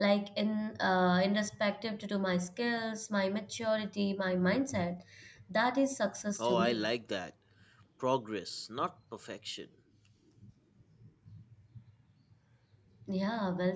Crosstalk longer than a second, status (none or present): none